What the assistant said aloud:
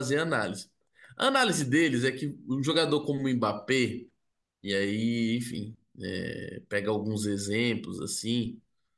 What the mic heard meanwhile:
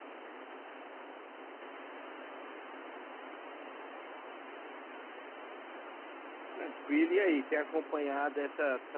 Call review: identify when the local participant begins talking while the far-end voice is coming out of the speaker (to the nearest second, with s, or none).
7 s